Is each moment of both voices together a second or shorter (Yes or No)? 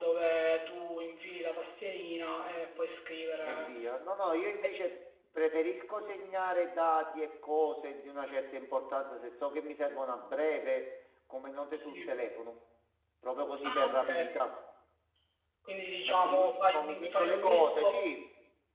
No